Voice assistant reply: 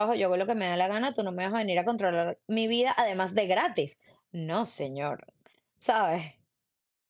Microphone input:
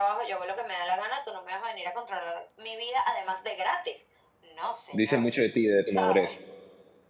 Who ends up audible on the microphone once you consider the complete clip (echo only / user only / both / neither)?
both